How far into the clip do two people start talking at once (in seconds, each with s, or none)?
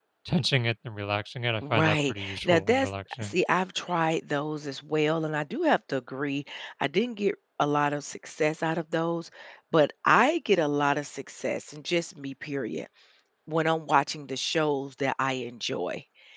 1.6 s